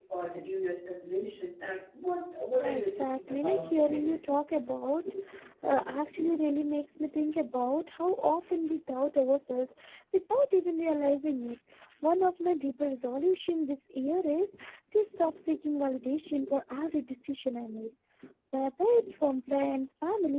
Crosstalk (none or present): present